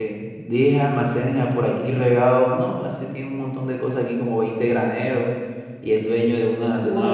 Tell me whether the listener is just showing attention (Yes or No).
Yes